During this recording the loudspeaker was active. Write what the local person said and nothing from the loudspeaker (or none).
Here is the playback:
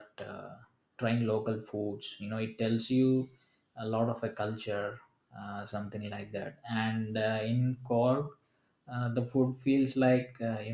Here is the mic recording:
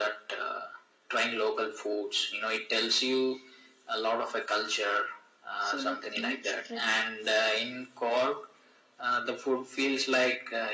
So, like each trek